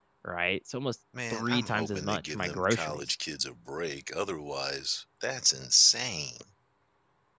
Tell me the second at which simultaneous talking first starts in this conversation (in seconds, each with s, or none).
1.3 s